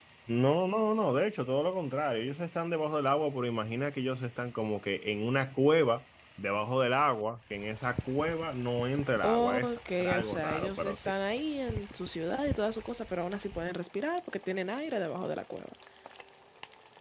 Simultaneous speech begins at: 9 s

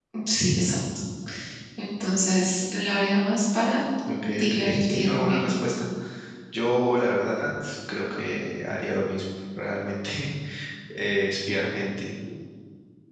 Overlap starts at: 4 s

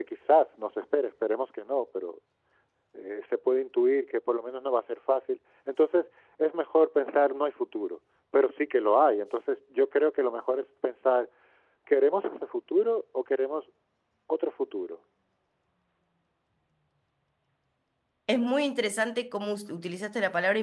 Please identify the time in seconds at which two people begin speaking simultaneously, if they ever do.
none

